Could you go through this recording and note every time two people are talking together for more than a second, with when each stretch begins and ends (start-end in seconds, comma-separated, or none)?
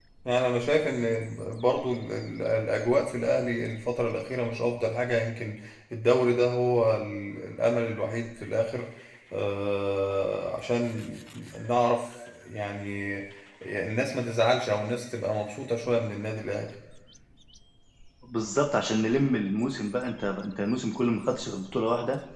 none